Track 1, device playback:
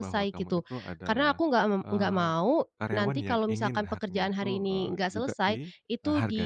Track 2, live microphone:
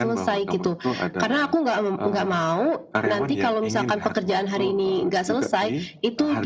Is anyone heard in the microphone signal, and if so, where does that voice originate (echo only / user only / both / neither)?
echo only